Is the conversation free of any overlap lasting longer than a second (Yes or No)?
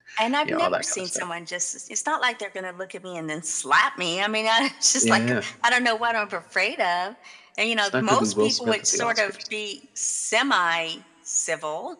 No